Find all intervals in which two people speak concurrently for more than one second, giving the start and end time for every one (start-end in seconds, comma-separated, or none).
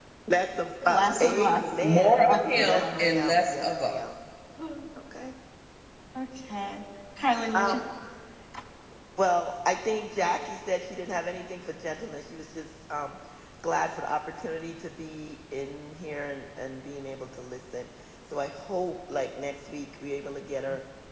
0.9-4.0